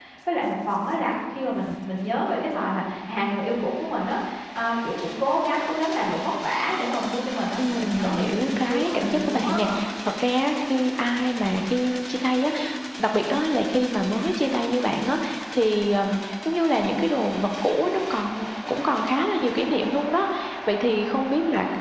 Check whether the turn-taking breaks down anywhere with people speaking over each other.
Yes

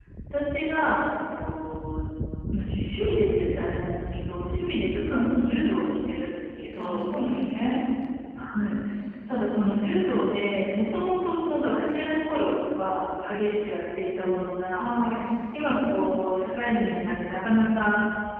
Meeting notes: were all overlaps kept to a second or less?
Yes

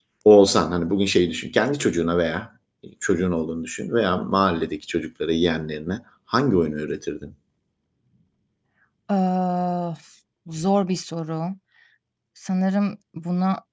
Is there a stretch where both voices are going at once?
No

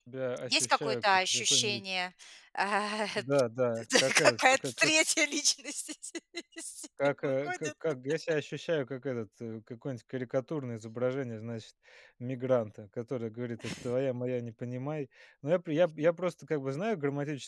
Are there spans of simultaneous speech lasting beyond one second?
Yes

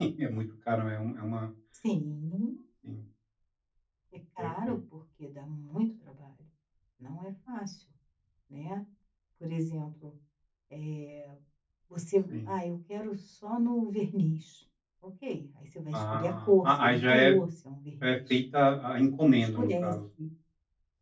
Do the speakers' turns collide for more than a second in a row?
Yes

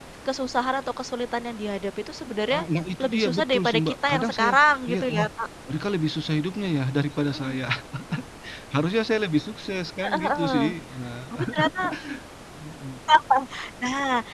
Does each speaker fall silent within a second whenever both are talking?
No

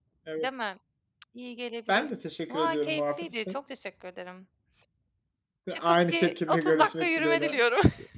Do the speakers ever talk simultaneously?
Yes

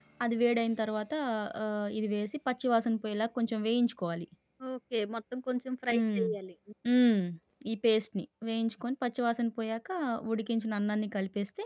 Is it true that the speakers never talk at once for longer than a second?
Yes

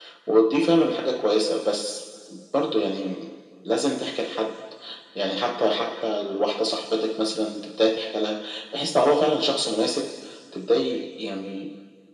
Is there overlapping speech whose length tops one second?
No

